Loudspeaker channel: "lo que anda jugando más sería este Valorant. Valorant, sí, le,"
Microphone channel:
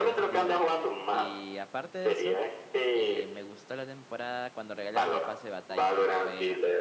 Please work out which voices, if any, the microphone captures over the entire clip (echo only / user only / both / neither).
both